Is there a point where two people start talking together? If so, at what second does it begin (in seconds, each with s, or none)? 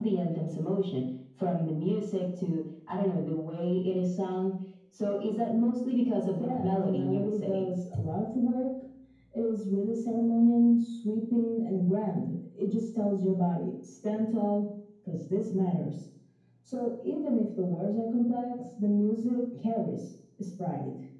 6.4 s